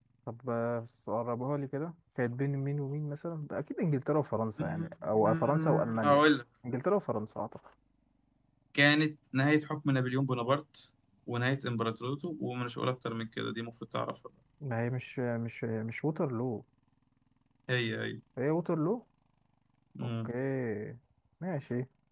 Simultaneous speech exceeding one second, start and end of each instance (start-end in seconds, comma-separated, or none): 4.6-6.2